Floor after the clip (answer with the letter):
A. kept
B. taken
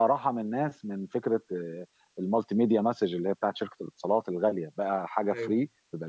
A